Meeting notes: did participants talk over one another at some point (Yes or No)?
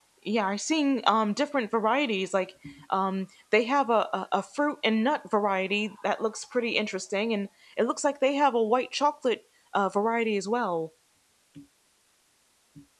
No